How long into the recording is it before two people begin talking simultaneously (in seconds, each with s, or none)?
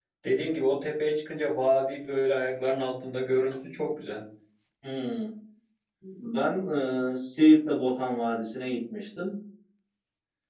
none